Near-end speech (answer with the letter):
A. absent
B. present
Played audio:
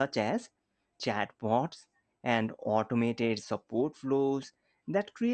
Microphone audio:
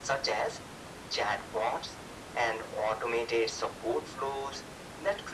A